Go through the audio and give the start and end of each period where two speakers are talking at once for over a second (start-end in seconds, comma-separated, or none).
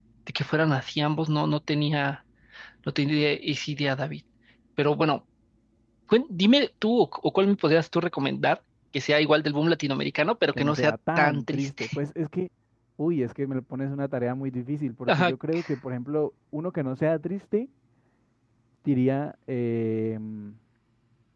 10.5-11.8